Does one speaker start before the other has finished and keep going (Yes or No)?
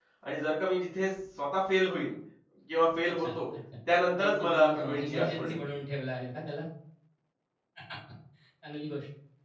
Yes